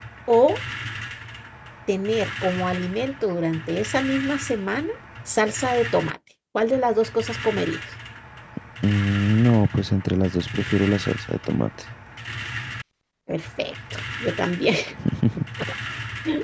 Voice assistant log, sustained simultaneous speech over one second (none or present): none